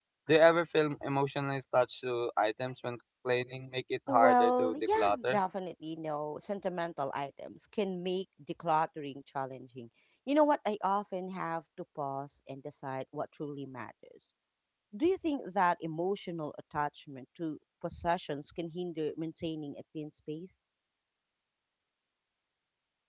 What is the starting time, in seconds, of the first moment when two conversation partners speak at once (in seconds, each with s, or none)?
4.1 s